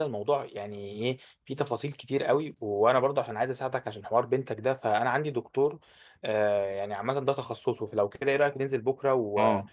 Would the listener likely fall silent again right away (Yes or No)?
No